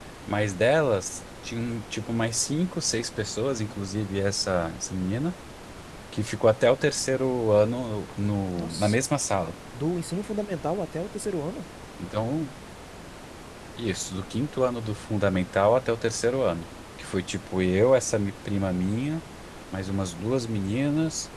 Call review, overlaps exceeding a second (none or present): none